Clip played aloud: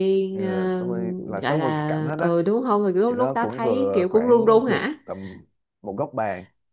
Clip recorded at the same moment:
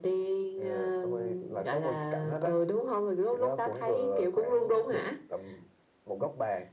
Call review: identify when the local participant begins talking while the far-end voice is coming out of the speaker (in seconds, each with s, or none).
none